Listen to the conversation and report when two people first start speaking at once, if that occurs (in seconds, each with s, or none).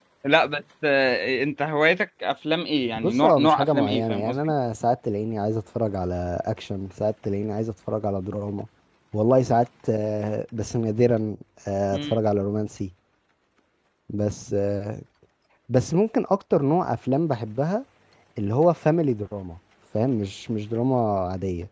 3.0 s